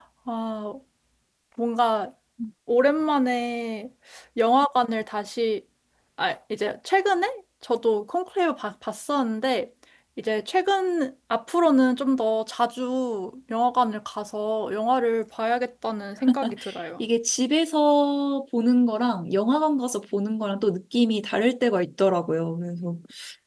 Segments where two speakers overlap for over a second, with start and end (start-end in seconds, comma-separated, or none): none